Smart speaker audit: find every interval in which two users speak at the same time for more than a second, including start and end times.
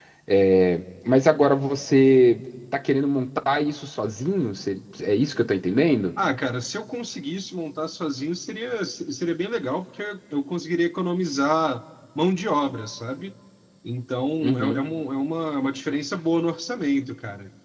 none

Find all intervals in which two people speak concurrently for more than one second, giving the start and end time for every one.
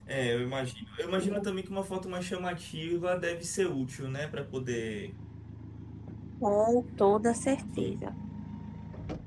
none

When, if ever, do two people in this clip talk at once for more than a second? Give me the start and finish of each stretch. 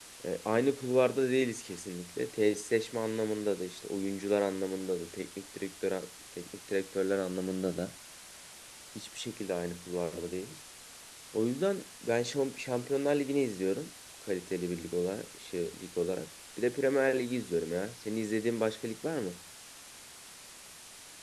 none

